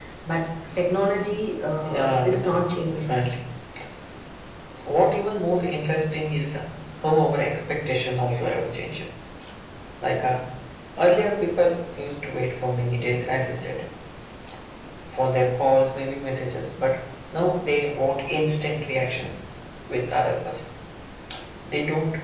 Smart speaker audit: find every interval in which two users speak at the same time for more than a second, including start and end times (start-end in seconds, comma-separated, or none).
1.8-3.1